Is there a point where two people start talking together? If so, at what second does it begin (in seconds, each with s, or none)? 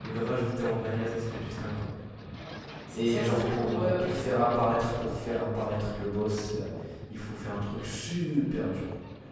2.9 s